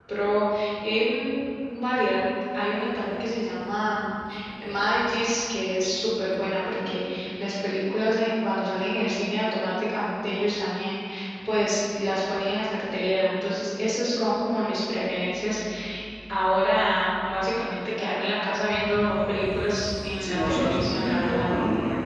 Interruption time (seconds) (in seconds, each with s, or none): 20.2 s